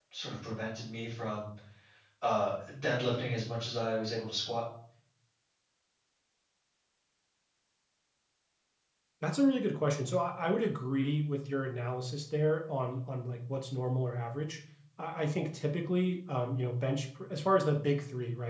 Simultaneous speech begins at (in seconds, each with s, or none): none